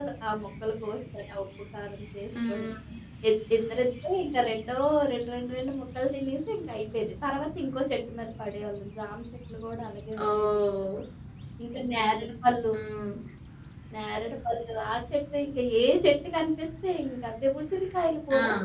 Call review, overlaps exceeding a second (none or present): none